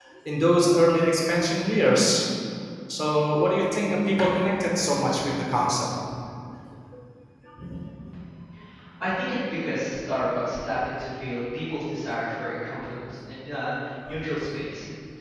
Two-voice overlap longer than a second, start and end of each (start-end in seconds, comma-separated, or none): none